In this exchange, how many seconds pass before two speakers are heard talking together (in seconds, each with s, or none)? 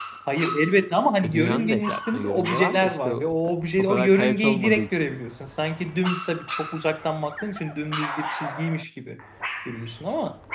1.2 s